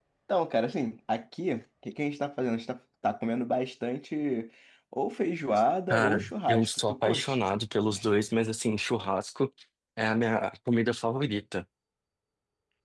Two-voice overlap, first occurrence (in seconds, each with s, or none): 5.9 s